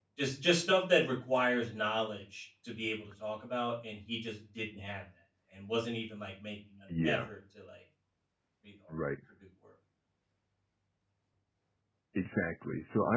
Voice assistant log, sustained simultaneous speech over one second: none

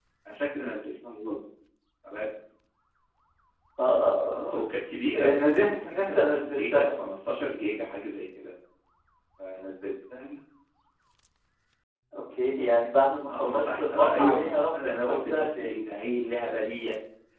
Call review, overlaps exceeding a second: present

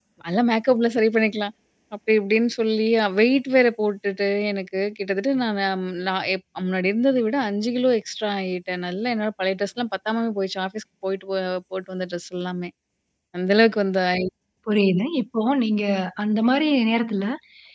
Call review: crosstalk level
none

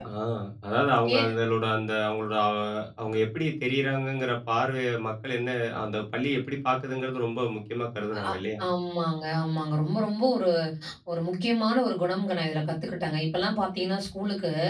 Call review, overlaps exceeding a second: none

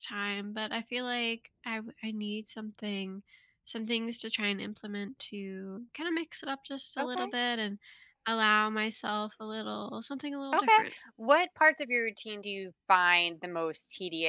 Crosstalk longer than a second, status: none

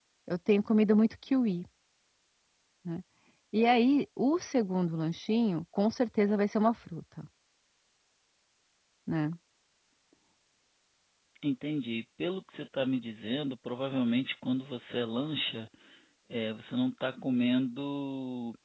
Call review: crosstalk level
none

